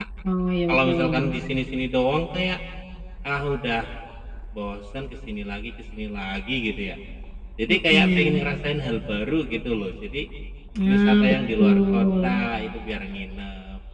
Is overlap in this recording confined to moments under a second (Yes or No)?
No